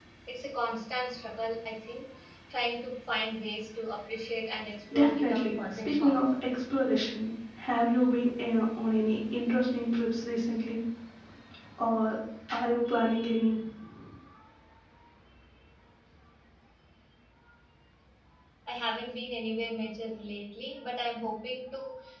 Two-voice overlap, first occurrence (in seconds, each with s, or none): 4.9 s